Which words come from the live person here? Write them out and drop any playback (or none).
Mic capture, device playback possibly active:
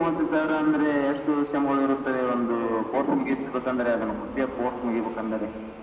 none